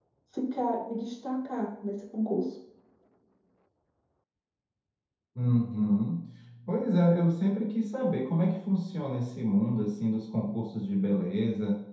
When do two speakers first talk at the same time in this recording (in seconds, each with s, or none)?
none